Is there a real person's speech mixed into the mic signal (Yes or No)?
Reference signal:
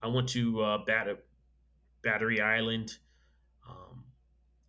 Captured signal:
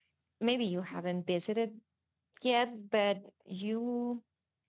Yes